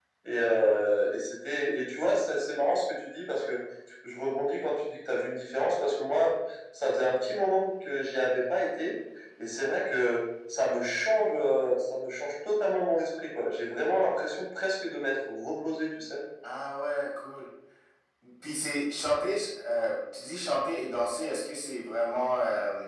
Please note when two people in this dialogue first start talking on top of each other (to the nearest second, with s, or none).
none